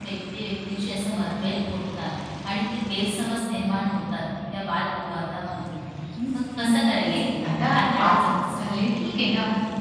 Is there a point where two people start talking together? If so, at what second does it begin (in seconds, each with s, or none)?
6.7 s